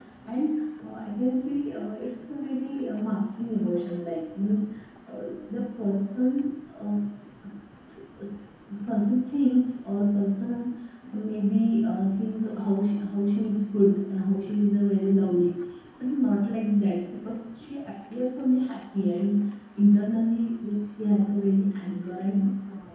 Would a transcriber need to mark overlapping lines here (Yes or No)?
No